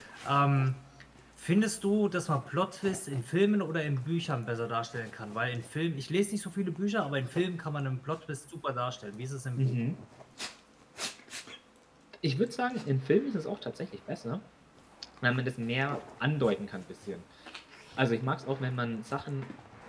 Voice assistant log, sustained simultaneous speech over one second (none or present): none